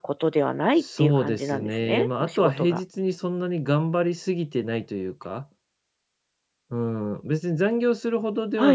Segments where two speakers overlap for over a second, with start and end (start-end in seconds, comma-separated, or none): 0.8-2.8